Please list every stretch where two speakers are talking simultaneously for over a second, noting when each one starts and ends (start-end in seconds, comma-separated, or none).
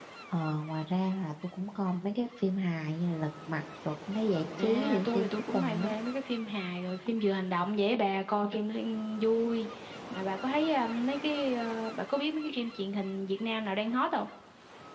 4.6-5.9